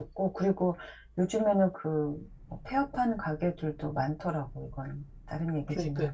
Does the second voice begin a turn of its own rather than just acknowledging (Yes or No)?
Yes